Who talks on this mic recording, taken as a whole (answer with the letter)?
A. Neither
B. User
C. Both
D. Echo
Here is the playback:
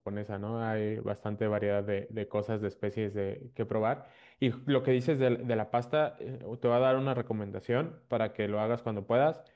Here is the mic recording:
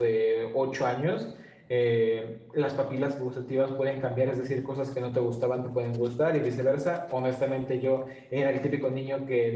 B